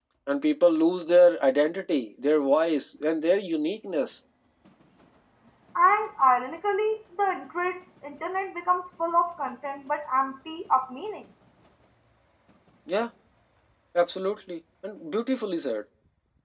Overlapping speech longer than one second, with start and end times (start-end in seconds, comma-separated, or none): none